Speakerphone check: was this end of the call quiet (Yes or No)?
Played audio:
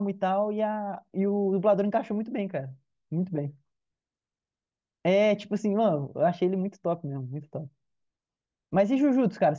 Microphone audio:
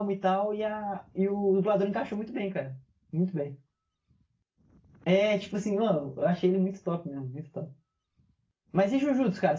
Yes